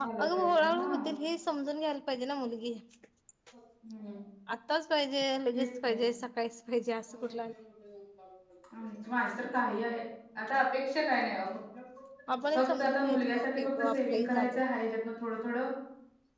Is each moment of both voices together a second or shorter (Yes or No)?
No